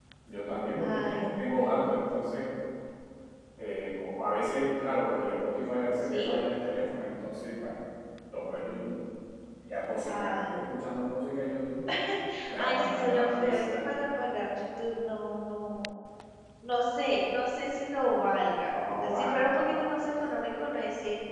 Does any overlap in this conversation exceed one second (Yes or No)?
Yes